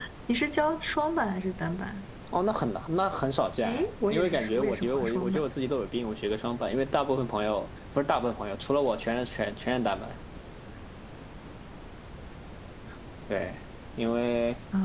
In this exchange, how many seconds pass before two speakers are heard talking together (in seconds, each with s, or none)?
3.6 s